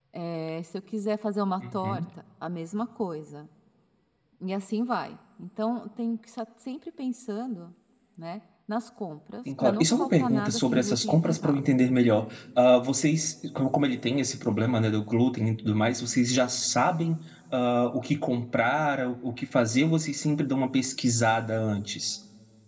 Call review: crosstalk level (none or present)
present